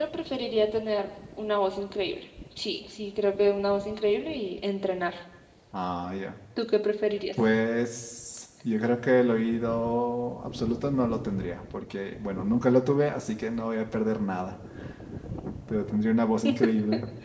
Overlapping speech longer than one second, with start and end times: none

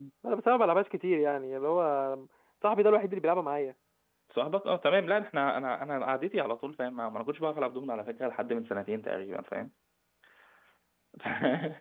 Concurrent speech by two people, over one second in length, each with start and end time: none

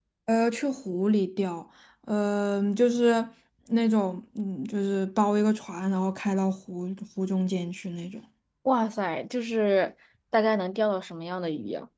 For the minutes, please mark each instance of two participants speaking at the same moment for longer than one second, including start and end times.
none

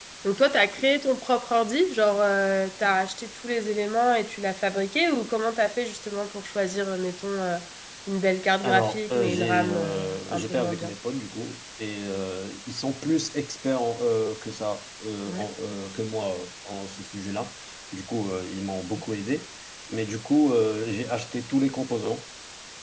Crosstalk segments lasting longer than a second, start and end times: 8.6-10.9

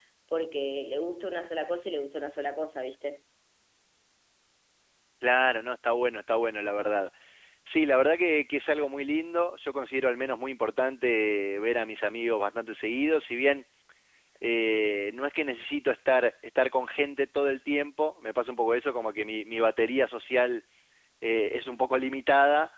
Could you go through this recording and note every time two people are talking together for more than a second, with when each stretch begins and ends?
none

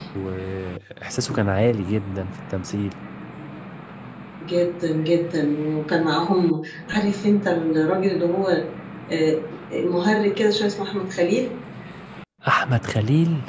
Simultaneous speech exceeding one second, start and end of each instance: none

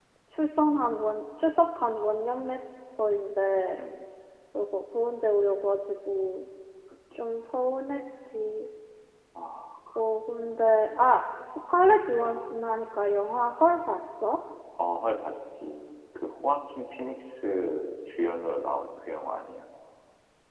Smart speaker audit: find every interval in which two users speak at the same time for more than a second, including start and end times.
none

